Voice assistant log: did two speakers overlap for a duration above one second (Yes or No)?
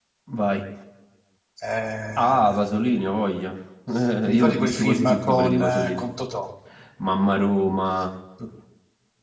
Yes